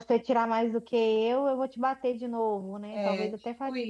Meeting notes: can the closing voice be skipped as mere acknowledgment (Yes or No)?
No